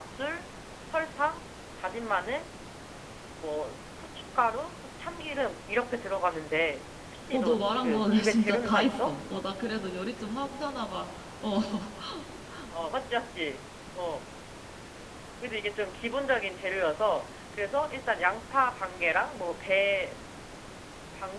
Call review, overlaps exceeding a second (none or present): present